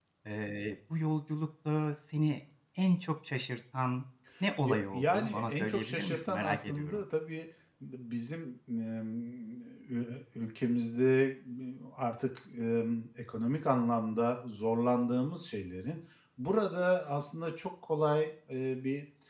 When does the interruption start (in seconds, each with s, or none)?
4.6 s